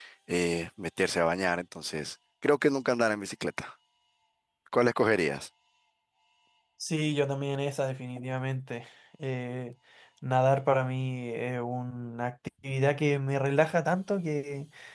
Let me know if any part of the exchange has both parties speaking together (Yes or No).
No